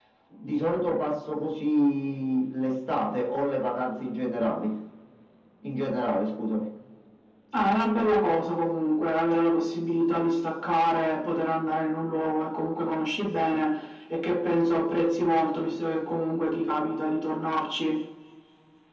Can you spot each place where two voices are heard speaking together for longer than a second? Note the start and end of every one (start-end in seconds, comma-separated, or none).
none